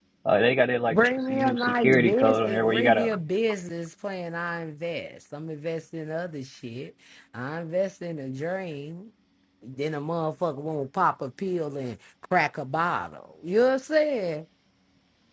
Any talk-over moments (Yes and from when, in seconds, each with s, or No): Yes, from 0.9 s